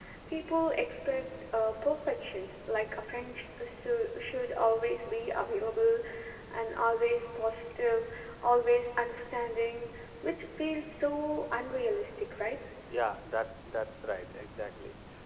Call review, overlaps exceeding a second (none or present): none